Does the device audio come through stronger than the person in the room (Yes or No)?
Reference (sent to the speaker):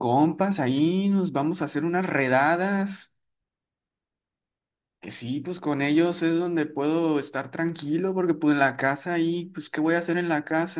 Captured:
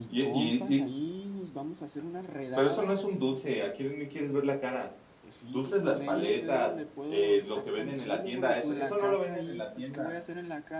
No